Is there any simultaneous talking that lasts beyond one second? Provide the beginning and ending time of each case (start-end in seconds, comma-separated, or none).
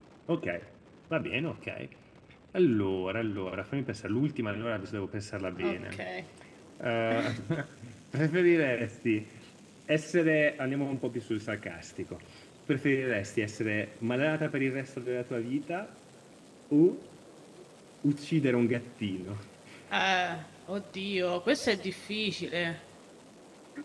none